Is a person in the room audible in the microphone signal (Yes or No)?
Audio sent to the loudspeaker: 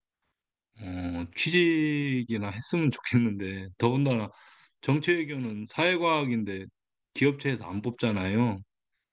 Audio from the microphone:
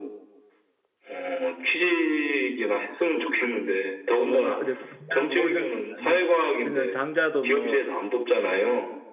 Yes